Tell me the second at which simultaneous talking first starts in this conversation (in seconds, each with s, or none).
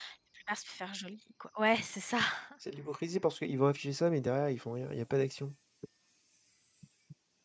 none